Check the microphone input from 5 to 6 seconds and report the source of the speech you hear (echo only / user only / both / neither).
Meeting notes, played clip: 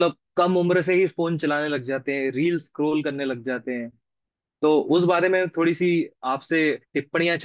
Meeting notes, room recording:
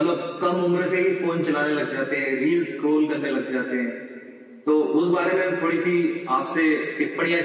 echo only